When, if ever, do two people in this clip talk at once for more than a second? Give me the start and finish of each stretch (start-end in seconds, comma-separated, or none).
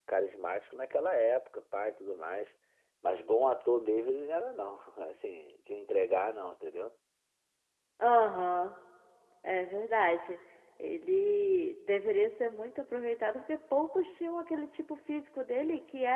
none